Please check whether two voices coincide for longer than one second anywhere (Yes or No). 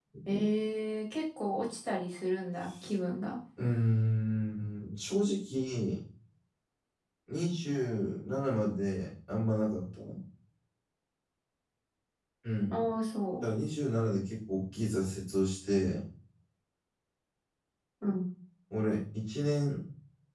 No